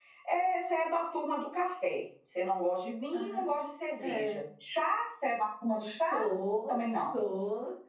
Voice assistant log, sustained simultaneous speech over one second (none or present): none